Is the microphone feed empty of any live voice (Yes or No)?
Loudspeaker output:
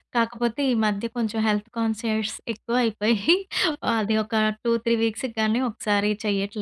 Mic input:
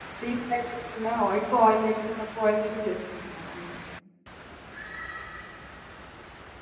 No